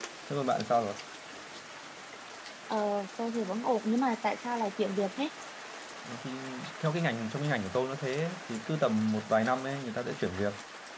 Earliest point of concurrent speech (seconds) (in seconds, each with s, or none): none